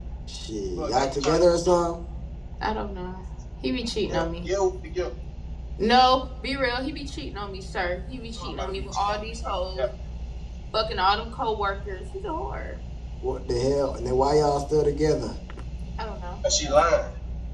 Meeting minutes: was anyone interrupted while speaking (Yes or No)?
Yes